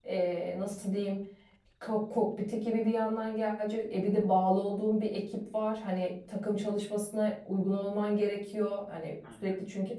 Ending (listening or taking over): listening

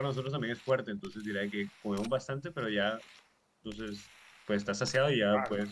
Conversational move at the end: taking over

